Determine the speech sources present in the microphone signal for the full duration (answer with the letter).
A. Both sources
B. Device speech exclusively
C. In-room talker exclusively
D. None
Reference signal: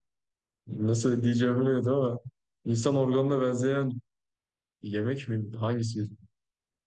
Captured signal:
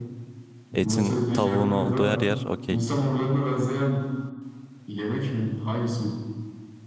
A